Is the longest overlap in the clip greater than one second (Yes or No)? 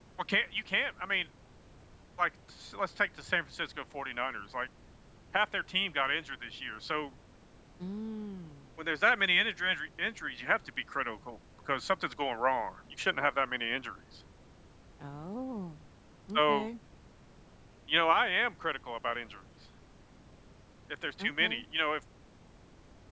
No